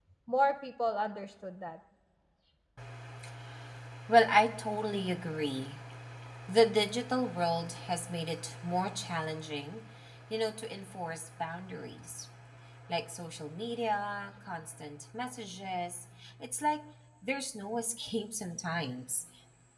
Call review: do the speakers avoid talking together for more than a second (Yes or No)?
Yes